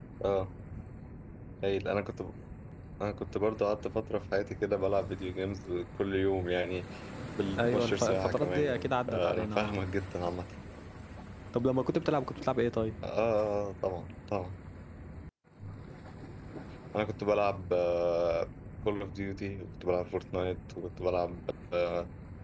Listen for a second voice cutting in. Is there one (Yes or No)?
Yes